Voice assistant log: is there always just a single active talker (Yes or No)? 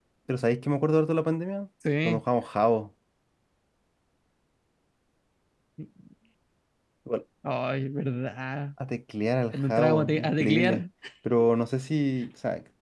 No